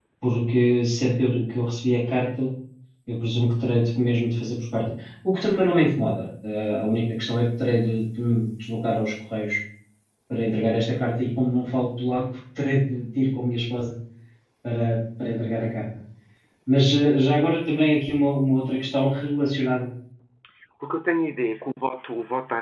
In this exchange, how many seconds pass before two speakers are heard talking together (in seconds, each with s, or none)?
none